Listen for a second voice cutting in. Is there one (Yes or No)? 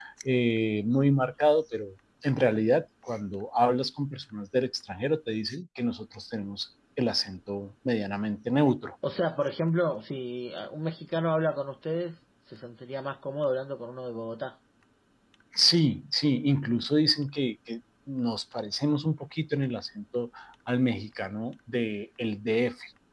No